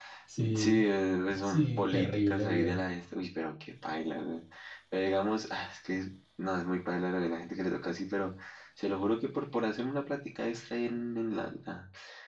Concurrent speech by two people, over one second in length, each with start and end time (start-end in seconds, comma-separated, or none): 1.4-2.8